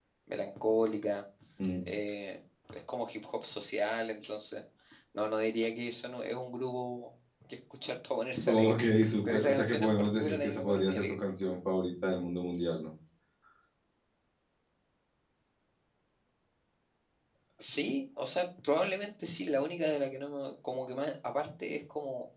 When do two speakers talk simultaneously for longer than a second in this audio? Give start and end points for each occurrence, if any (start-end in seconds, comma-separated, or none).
9.2-11.2